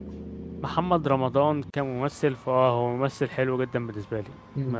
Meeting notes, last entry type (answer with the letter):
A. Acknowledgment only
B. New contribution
B